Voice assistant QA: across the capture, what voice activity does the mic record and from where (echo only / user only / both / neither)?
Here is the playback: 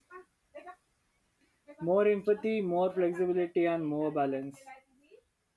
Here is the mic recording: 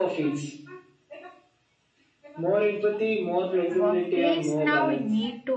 both